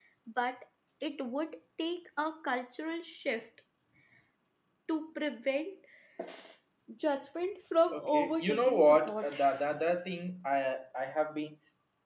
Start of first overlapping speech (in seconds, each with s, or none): 7.9 s